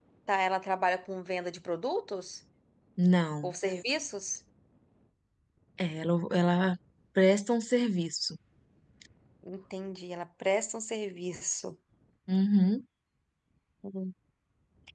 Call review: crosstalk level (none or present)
none